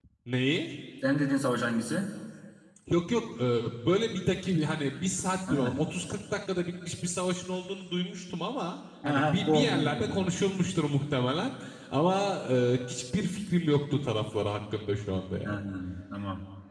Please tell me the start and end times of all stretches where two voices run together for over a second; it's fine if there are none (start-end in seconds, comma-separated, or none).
9.1-10.2